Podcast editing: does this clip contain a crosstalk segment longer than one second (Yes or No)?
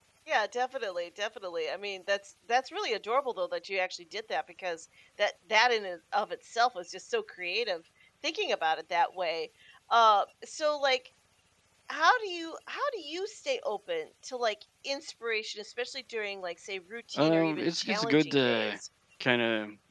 Yes